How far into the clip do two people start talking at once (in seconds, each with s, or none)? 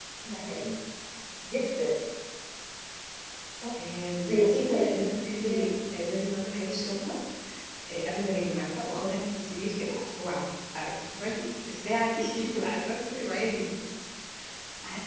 4.2 s